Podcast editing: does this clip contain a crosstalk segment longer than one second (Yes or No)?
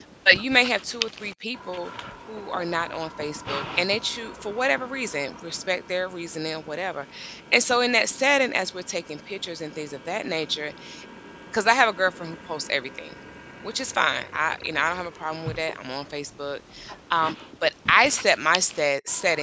No